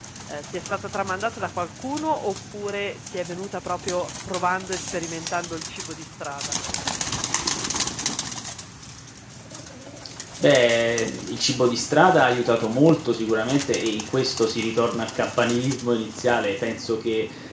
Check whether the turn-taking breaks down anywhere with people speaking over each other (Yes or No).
No